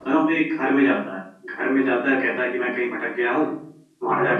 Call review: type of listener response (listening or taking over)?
listening